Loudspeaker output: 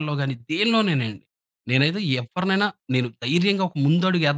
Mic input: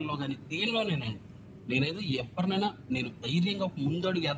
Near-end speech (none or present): none